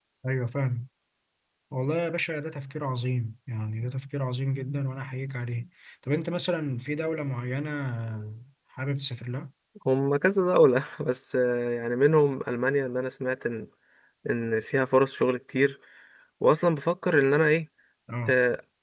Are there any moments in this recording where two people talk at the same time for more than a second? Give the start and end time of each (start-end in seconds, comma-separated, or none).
none